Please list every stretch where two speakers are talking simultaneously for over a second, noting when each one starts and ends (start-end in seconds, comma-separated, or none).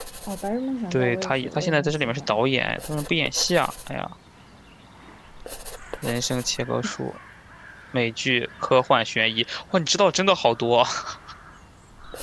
0.9-2.4